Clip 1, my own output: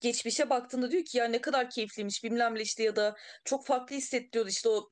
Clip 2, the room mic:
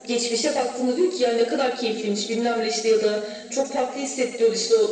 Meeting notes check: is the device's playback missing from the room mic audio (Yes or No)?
No